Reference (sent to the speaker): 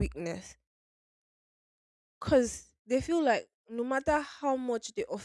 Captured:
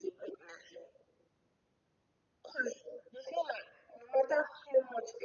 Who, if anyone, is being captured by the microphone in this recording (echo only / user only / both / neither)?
echo only